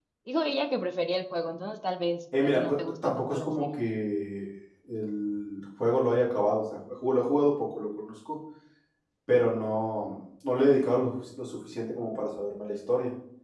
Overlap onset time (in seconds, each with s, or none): 2.3 s